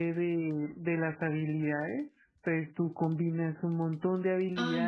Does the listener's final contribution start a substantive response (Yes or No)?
Yes